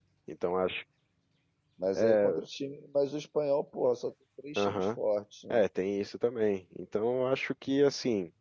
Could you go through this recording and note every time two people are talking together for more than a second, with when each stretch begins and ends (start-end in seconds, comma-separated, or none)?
none